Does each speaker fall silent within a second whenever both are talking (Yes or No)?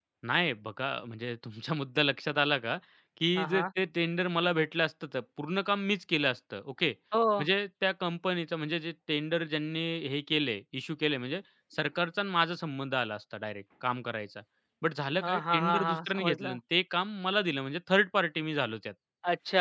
No